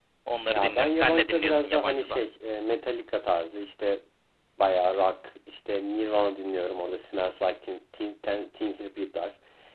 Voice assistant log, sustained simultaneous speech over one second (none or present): present